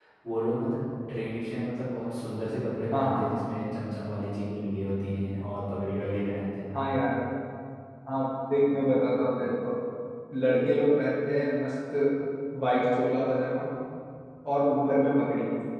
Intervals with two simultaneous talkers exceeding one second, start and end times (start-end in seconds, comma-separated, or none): none